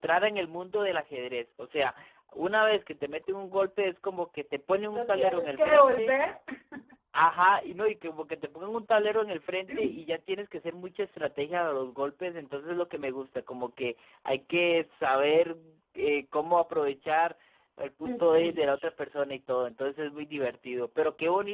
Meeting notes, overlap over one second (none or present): present